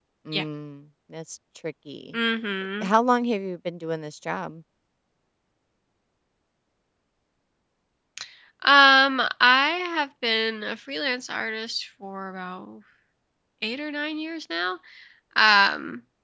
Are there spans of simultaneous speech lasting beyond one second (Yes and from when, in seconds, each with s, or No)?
No